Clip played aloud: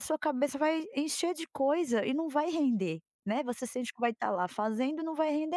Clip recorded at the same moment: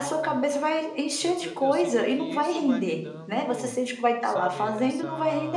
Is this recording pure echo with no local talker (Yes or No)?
No